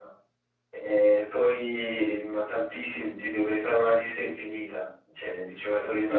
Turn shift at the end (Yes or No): Yes